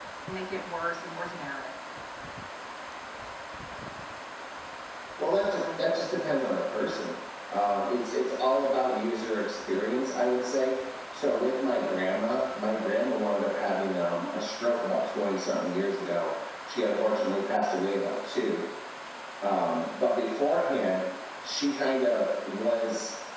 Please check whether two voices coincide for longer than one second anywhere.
No

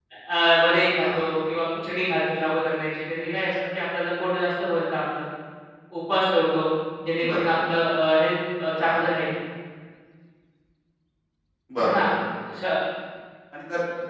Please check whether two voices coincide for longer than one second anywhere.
No

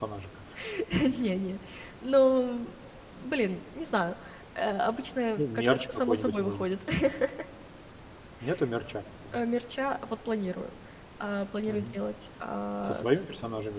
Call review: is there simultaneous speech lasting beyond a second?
Yes, from 5.4 s

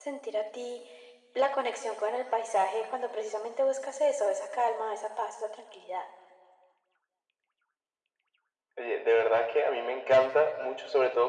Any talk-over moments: No

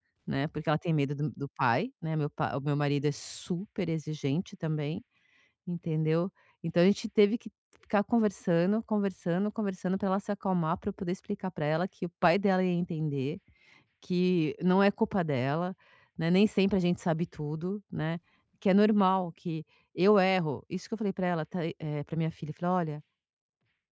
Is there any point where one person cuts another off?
No

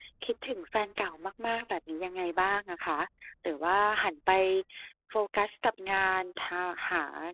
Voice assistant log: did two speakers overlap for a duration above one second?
No

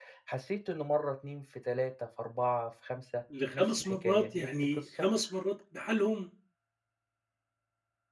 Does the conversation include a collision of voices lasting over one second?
Yes, from 3.3 s

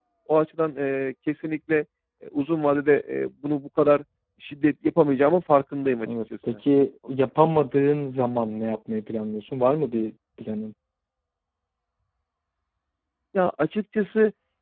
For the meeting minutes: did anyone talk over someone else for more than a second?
No

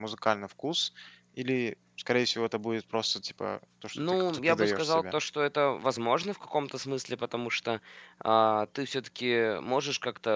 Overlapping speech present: Yes, from 4.0 s

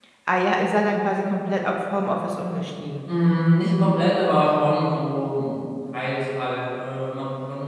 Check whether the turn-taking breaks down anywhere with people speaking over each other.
No

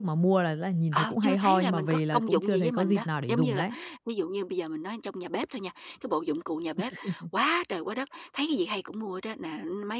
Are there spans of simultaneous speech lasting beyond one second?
Yes, from 0.9 s

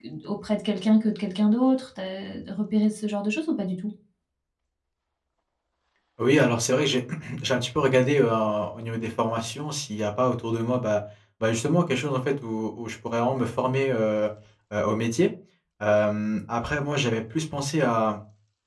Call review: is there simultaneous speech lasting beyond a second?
No

